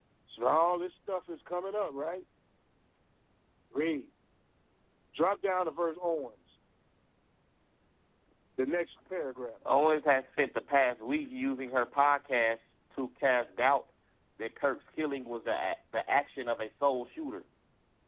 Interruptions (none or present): none